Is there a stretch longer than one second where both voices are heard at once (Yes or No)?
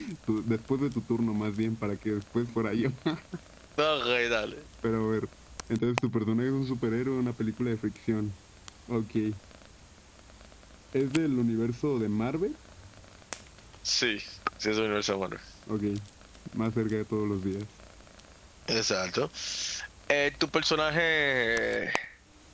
No